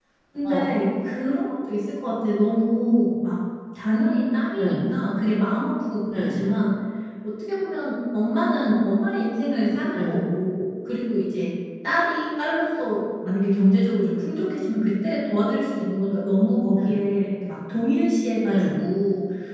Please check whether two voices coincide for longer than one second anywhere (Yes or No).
No